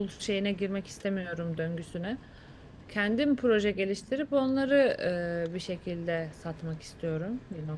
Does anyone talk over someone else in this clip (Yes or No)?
No